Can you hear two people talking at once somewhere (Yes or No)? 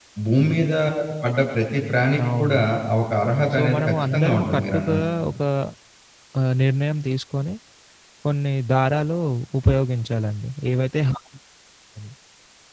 Yes